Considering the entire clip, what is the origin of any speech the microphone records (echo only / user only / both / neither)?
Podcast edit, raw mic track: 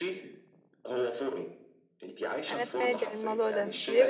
both